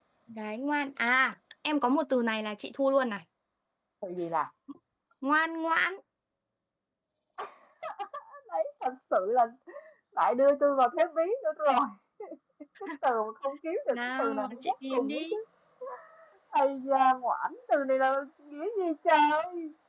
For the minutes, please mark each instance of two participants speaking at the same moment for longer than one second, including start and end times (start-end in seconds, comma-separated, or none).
13.9-15.3